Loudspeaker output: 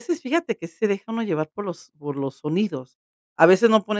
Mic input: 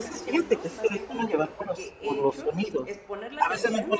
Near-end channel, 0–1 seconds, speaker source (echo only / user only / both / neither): both